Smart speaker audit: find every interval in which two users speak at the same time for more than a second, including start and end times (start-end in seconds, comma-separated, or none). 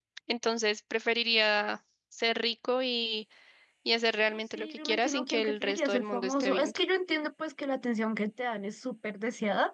4.5-6.8